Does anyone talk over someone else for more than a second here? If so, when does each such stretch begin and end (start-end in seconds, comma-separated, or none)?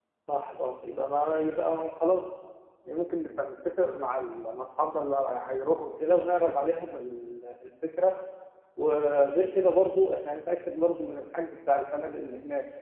none